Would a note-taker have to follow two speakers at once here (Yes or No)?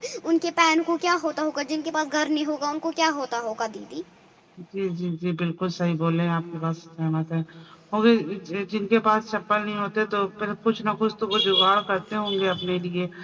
No